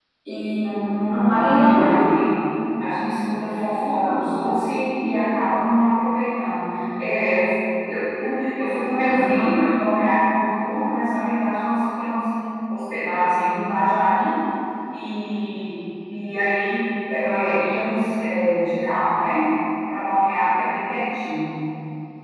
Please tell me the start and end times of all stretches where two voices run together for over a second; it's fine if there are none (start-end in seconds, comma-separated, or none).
0.6-2.1